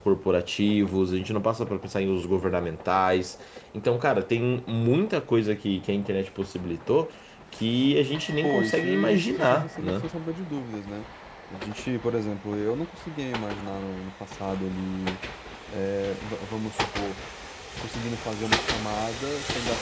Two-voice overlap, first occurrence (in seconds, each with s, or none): 8.4 s